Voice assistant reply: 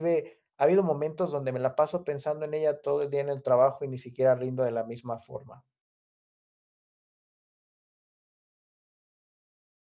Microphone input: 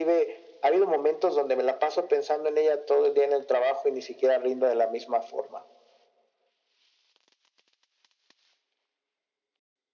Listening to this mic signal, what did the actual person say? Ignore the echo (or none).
none